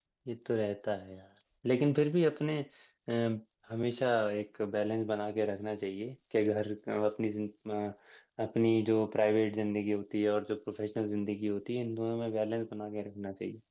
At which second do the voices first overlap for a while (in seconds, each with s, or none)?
none